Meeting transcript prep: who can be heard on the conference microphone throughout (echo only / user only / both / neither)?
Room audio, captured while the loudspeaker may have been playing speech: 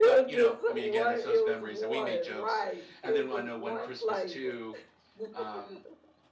both